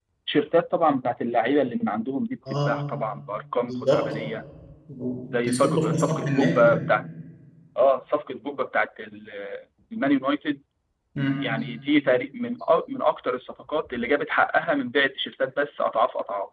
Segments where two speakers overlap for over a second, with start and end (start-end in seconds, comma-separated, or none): 5.3-6.8